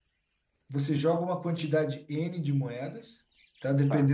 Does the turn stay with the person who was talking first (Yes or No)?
Yes